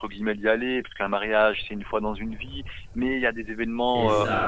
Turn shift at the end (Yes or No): No